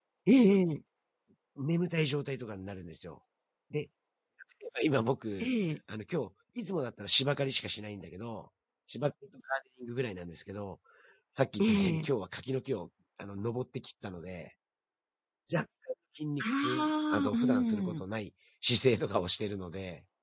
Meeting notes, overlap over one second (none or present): present